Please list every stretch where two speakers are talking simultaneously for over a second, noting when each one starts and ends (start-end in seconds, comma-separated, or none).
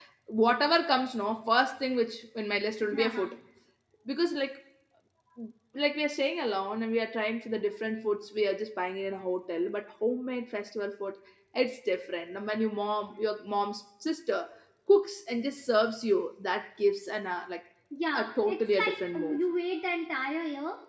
18.1-19.4